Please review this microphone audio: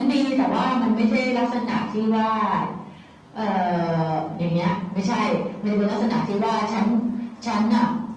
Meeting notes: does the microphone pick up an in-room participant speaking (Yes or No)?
No